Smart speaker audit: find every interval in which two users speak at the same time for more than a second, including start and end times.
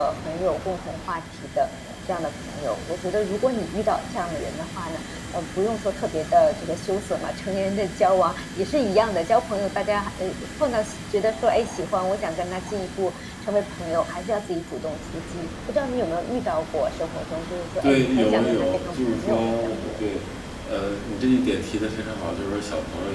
17.8-20.1

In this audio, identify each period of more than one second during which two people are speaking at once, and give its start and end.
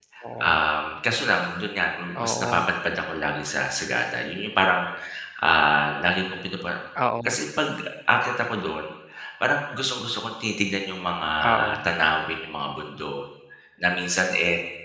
none

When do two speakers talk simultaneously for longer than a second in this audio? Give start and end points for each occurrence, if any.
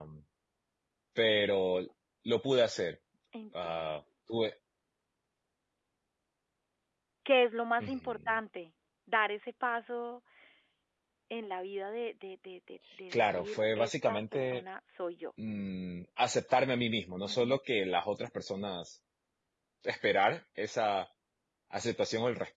13.1-14.6

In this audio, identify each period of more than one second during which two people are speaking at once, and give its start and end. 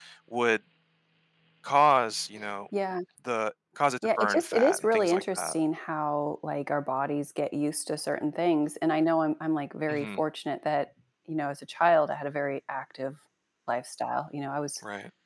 4.0-5.6

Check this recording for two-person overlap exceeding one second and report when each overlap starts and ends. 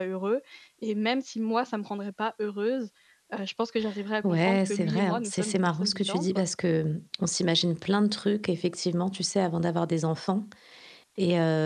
4.2-6.5

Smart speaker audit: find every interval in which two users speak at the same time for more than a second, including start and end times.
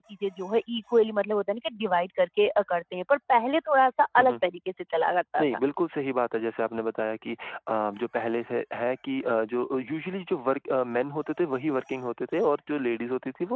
none

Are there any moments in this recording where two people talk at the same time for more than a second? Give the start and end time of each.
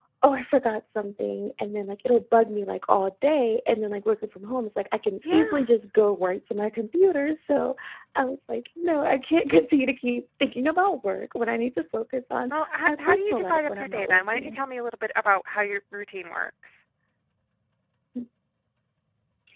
12.5-14.6

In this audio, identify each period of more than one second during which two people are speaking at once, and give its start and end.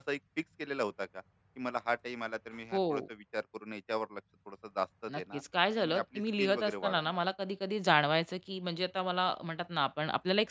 5.8-7.2

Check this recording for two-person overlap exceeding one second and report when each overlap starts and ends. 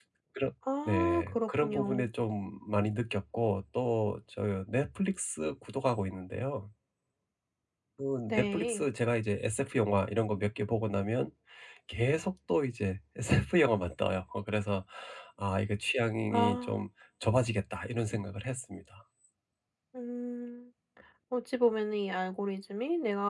0.8-2.1

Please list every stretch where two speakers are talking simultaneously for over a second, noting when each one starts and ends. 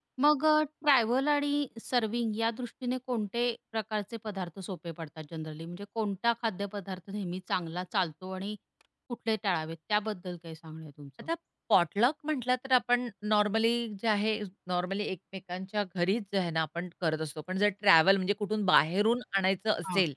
none

